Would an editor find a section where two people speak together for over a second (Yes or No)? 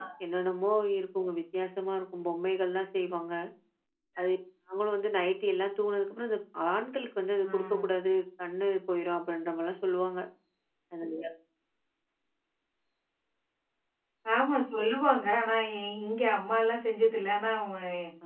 No